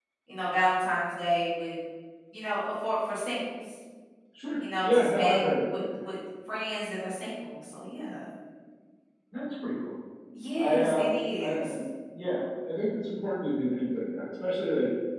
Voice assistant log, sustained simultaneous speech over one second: present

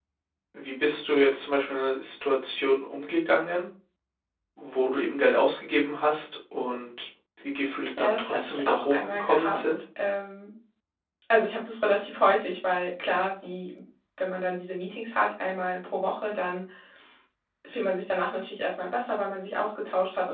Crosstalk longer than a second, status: present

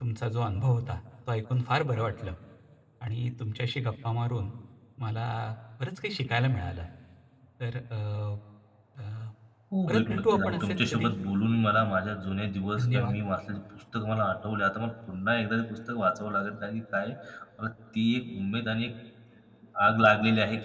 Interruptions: present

